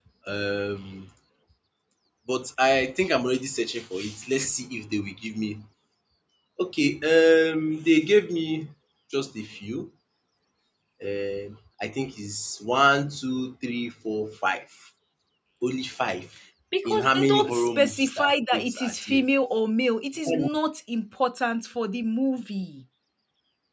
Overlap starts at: 16.9 s

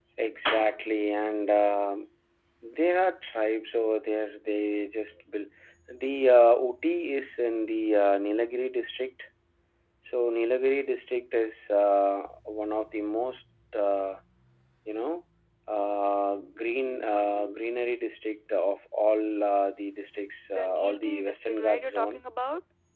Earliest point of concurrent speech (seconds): 20.5 s

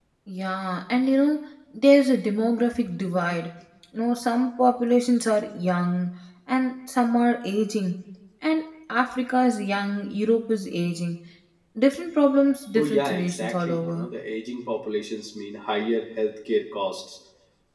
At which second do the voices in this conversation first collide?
12.8 s

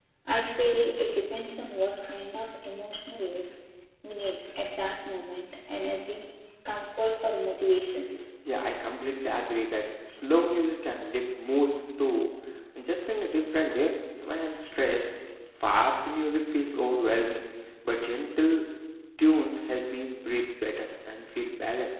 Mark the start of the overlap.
none

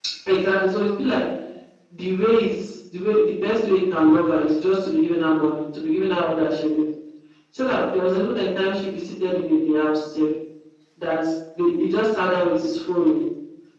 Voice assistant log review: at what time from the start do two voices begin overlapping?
none

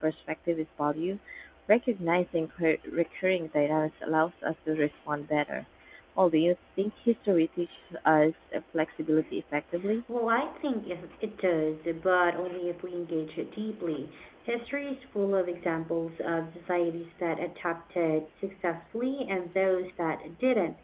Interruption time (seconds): none

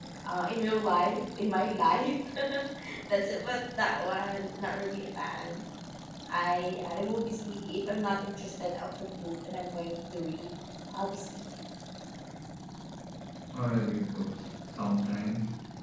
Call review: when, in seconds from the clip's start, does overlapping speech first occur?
none

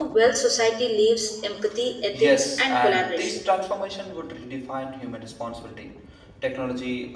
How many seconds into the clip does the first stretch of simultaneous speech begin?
2.1 s

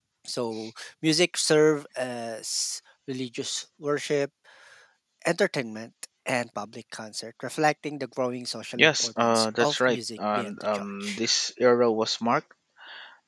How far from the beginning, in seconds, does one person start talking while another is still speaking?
8.8 s

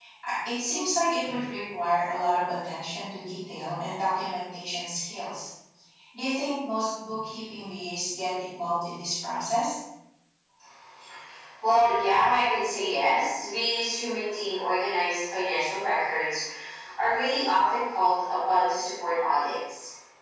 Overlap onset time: none

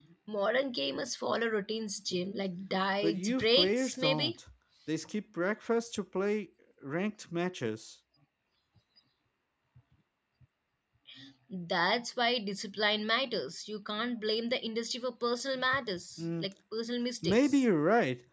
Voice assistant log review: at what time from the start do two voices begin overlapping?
3.0 s

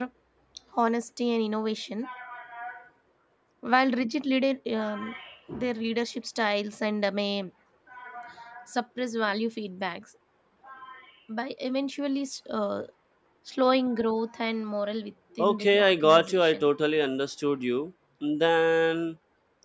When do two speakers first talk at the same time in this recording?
15.4 s

